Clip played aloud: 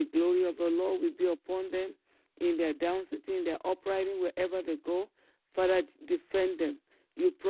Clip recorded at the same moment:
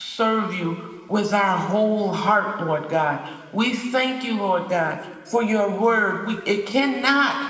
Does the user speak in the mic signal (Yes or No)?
Yes